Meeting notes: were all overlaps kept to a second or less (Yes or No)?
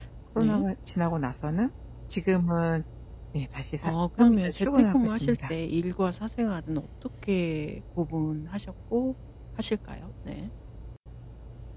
No